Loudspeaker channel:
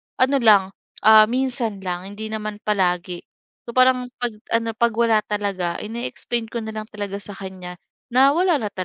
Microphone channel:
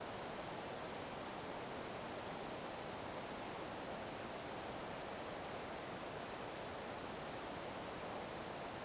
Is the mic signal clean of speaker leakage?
Yes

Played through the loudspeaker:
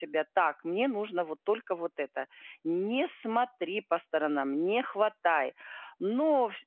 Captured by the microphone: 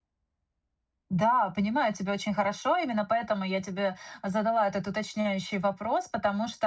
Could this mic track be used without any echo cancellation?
Yes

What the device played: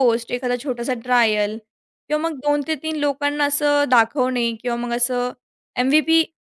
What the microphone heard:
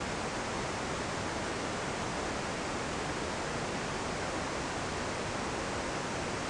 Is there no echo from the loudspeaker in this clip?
Yes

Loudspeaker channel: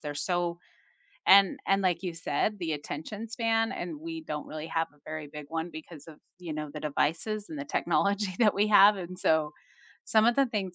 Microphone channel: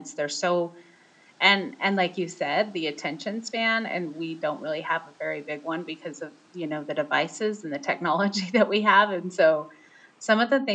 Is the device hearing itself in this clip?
Yes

